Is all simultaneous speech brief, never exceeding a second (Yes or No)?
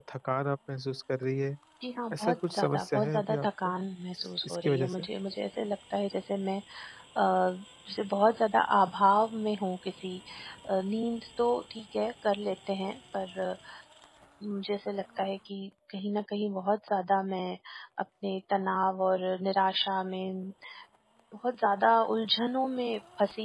No